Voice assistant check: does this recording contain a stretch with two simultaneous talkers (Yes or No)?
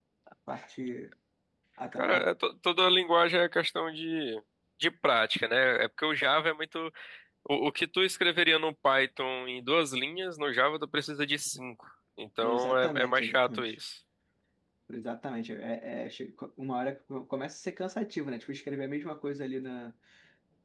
Yes